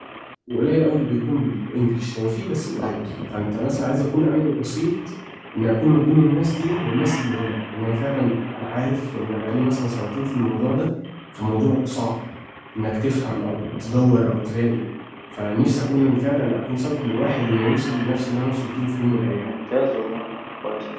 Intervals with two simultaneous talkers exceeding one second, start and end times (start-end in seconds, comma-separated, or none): none